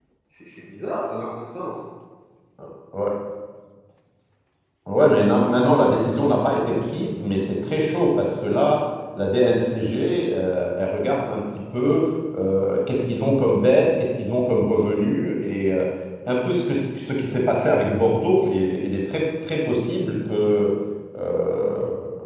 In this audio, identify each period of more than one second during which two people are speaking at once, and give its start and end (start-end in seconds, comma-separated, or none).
none